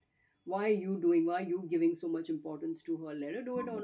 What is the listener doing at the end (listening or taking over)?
listening